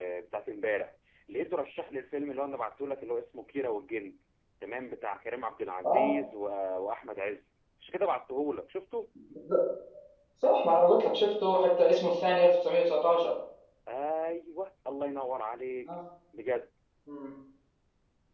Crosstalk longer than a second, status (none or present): none